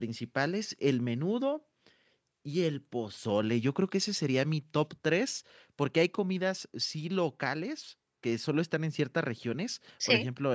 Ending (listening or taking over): listening